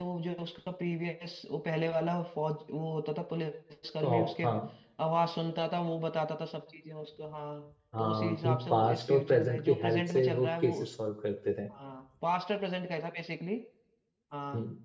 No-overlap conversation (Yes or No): No